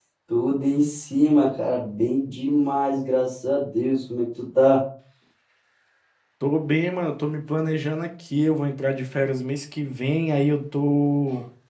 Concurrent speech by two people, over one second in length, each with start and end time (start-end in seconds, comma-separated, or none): none